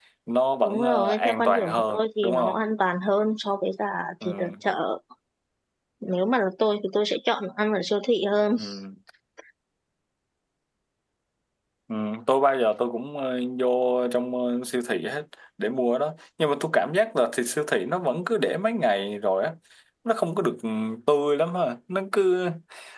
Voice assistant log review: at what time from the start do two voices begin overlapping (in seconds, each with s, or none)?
0.6 s